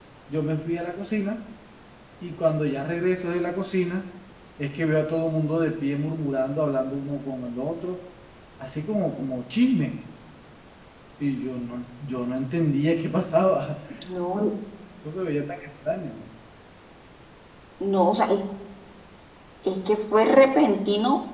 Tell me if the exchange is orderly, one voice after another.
Yes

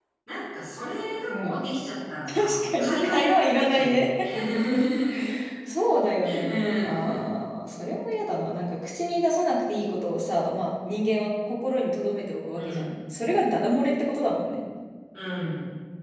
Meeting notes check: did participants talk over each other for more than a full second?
Yes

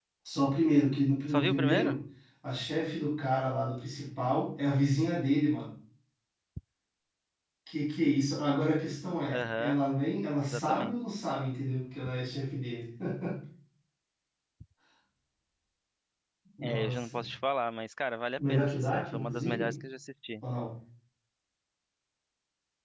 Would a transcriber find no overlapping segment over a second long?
No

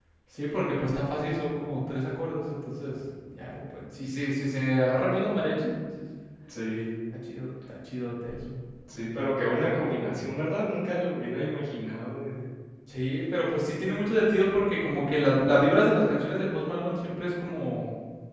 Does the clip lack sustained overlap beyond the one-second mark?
Yes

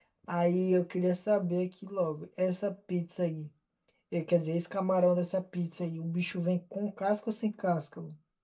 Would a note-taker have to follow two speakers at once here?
No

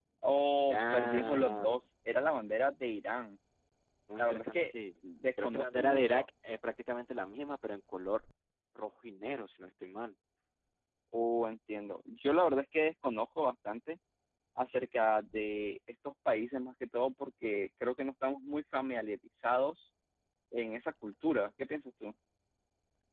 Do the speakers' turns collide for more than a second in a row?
Yes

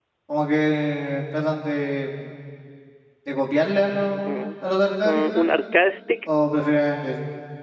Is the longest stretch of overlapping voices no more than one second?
Yes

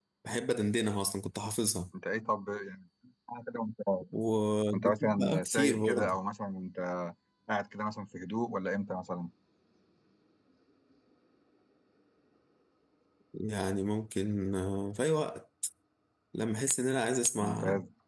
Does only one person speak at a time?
No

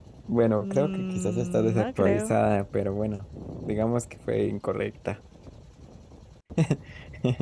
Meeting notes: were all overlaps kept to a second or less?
No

